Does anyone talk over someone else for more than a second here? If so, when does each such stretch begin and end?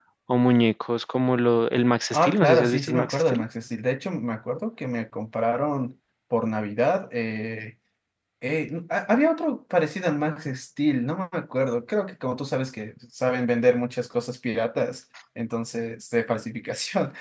2.1-3.4

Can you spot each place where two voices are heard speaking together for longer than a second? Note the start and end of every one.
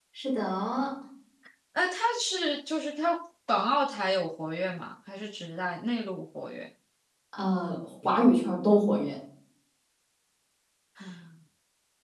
none

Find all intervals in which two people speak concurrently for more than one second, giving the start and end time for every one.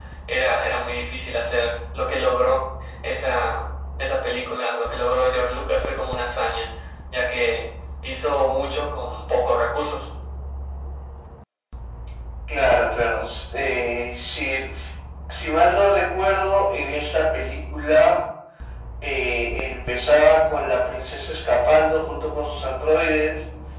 none

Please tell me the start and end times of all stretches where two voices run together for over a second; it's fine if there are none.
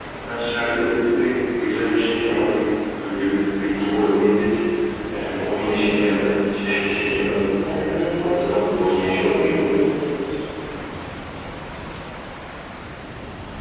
8.2-9.7

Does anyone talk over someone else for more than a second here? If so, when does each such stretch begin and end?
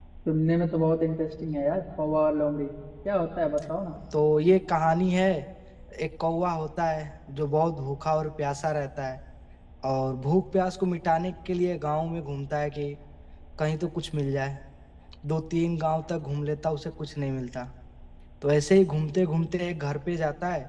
none

